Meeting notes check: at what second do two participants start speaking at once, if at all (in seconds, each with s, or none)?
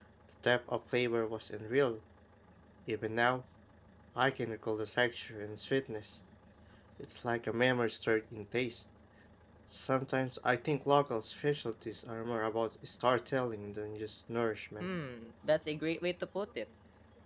none